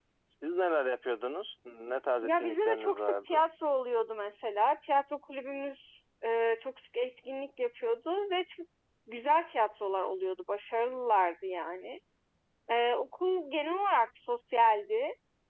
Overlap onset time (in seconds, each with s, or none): 2.2 s